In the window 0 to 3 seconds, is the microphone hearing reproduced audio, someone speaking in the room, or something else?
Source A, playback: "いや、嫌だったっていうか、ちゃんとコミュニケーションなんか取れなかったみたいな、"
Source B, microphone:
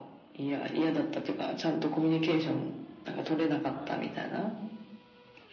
echo only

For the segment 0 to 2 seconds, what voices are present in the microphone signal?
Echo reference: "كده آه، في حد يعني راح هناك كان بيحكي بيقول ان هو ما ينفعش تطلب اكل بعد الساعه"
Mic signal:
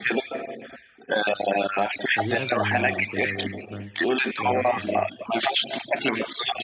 echo only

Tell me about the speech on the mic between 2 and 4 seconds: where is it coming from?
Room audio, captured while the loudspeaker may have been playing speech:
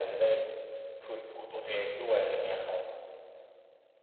echo only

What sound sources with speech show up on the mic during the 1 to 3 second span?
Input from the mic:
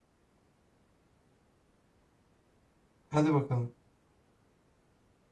neither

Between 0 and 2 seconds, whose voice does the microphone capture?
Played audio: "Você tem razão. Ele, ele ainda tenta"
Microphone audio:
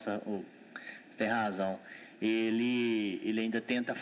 echo only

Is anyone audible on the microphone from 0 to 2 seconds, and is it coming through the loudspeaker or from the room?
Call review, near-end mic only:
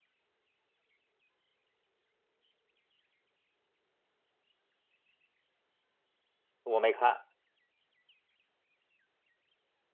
neither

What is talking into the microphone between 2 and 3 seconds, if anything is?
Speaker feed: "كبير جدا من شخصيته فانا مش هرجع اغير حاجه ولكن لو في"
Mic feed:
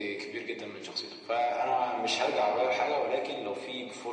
echo only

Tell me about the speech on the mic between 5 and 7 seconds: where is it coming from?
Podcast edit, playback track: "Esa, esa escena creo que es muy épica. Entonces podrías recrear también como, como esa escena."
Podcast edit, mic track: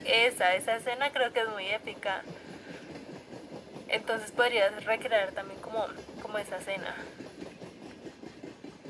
echo only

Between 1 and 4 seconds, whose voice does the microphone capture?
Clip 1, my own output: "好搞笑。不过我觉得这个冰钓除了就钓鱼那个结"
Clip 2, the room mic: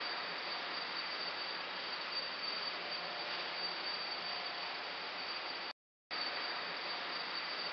neither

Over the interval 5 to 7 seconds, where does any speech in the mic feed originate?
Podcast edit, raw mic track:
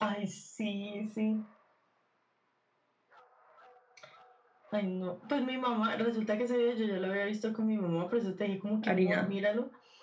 echo only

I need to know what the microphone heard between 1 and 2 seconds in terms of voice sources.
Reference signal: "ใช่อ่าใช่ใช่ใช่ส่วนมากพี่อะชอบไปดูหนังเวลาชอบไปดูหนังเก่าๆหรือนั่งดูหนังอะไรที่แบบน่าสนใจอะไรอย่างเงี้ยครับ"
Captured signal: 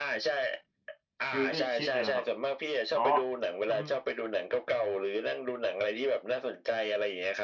both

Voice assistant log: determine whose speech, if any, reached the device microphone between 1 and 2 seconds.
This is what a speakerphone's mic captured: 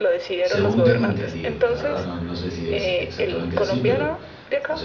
both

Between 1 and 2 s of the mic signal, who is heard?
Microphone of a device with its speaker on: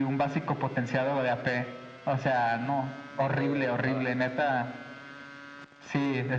echo only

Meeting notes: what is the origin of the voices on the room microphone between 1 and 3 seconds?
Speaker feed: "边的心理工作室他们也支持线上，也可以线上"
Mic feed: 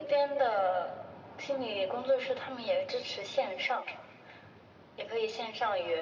echo only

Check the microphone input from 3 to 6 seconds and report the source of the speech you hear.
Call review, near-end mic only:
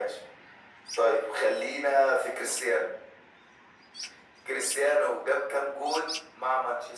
echo only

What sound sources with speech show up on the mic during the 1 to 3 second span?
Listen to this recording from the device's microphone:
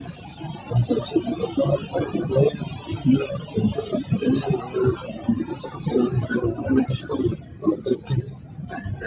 echo only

